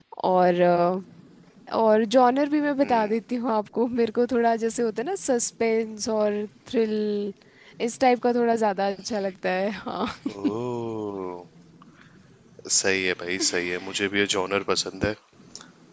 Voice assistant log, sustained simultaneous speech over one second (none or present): none